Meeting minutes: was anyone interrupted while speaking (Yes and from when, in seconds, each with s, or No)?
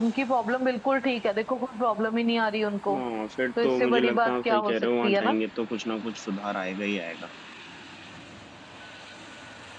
Yes, from 3.6 s